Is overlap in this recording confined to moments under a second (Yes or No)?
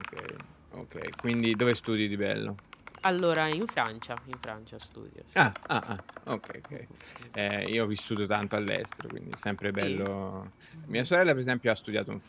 Yes